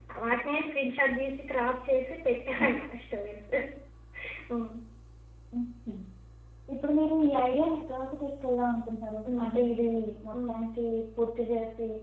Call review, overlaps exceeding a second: none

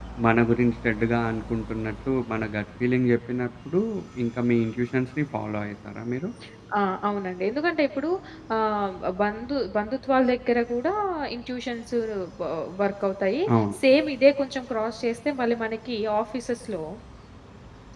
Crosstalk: none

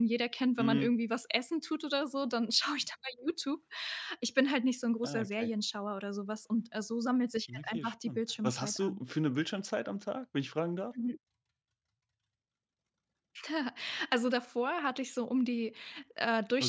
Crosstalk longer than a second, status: present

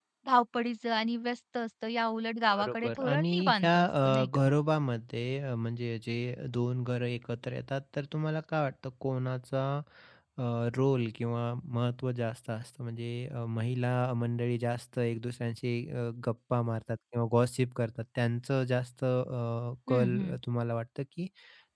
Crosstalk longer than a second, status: present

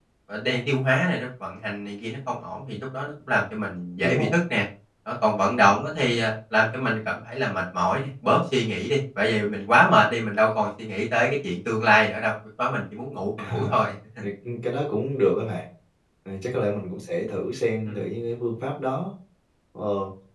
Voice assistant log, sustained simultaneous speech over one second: none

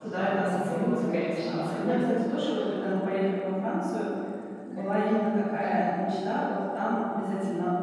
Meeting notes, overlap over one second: present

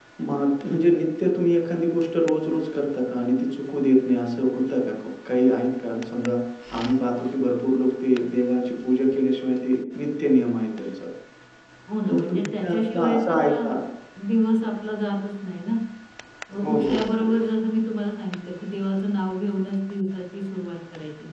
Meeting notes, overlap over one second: present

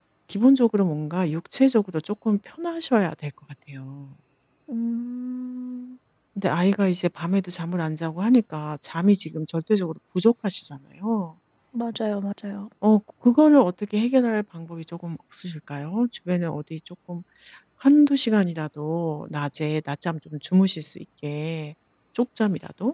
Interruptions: none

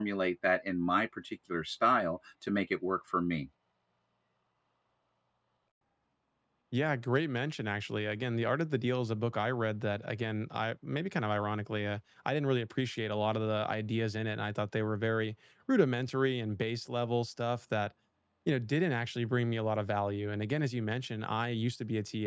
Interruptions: none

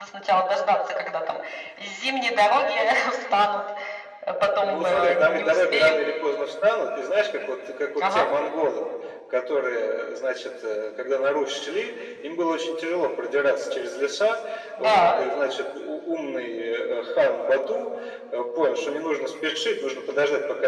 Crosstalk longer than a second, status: present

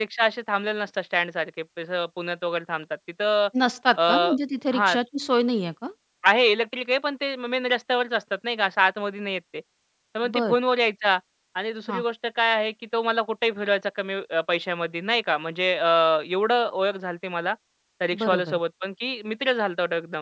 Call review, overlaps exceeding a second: none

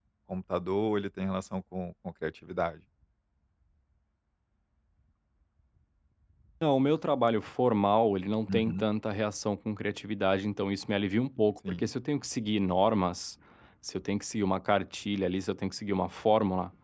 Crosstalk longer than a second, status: none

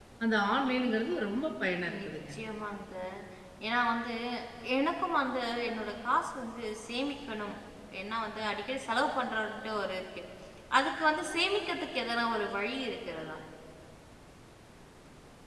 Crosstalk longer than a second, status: none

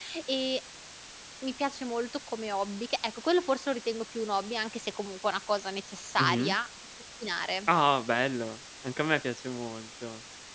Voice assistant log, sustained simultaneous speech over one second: none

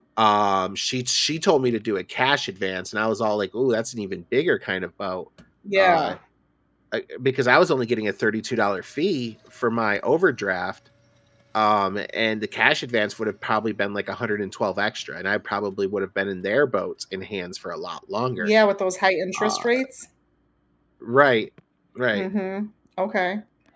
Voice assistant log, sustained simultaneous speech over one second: none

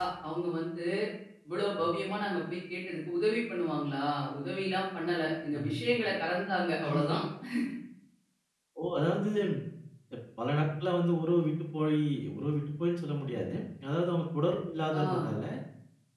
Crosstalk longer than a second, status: none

